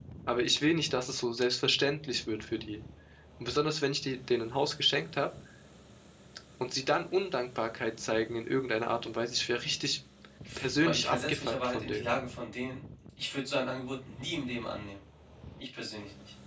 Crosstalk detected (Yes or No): Yes